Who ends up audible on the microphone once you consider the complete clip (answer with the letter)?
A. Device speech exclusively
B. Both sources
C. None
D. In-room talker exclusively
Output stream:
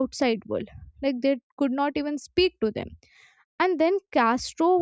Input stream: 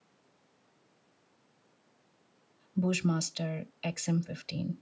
D